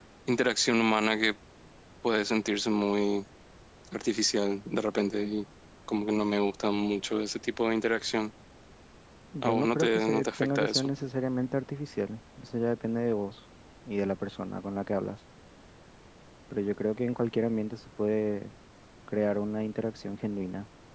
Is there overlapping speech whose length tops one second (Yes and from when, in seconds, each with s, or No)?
Yes, from 9.4 s